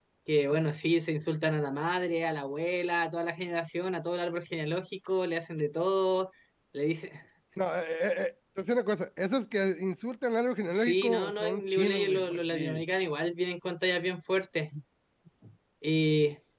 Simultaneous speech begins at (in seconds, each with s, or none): 10.6 s